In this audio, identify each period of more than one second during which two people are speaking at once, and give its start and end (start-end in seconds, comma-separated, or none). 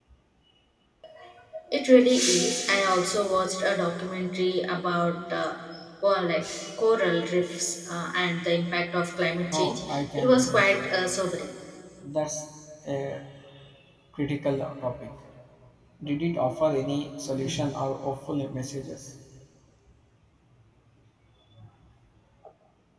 9.5-10.9